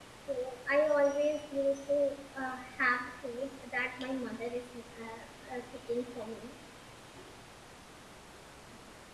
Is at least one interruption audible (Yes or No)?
No